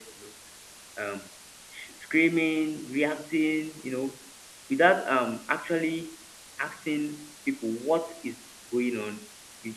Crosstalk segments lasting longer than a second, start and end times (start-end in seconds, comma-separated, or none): none